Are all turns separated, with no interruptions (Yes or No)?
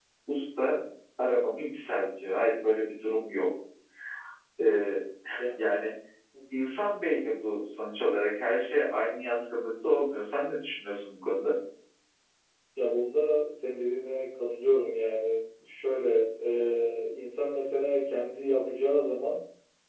Yes